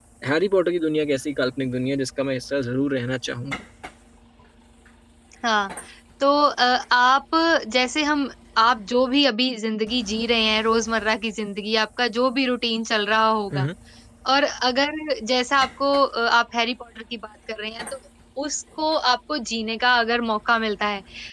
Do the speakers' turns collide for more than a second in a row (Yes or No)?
No